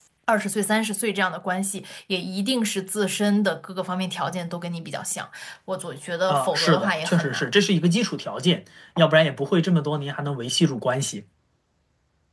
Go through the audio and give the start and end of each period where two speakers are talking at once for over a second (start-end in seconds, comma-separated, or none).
6.3-7.6